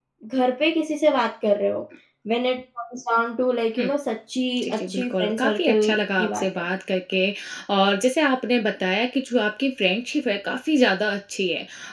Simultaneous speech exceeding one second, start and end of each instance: 4.6-6.6

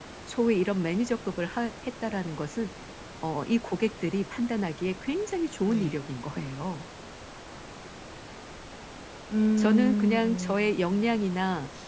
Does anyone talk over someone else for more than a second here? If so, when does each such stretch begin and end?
9.6-11.0

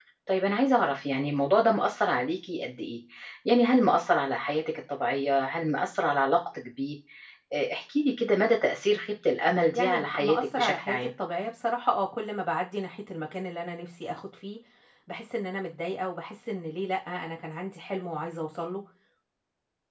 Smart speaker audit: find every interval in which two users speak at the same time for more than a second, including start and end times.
9.7-11.1

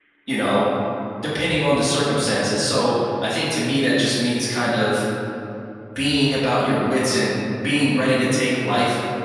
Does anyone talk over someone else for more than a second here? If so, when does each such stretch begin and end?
none

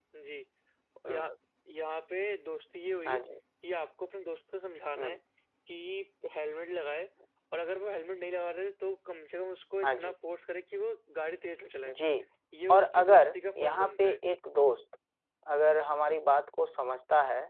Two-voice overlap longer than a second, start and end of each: 12.7-14.2

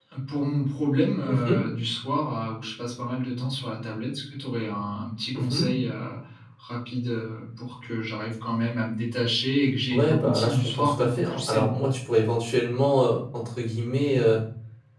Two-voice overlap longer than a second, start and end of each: 9.9-11.7

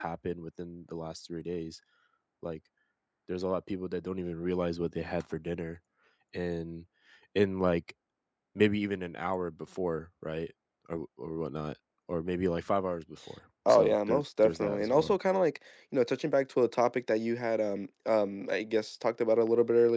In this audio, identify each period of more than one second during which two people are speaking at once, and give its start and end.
13.7-15.2

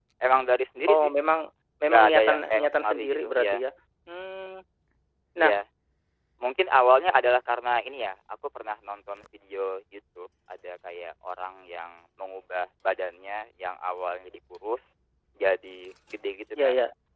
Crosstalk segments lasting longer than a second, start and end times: 1.9-3.5

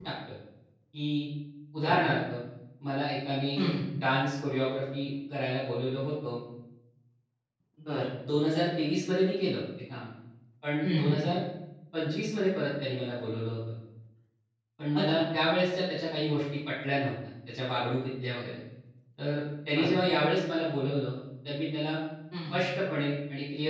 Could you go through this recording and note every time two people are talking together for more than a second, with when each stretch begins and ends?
none

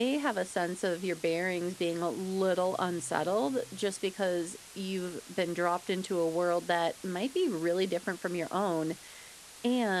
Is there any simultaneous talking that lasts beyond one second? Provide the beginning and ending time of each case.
none

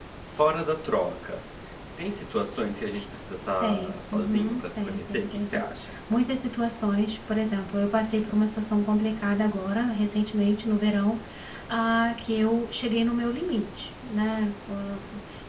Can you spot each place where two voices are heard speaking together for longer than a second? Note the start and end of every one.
3.6-5.7

